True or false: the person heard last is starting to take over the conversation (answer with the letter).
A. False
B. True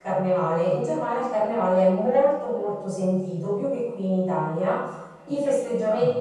A